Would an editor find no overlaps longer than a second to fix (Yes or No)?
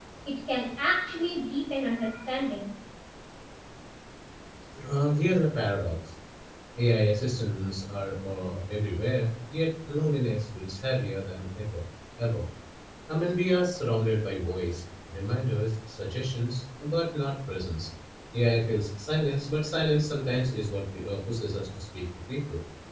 Yes